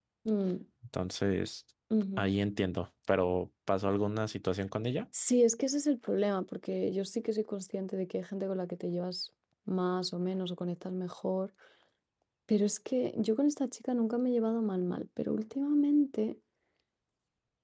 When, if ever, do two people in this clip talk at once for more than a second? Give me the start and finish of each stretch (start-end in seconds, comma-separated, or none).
none